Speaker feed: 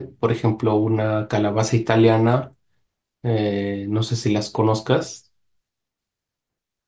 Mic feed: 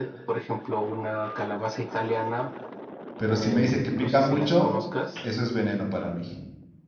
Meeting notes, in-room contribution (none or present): present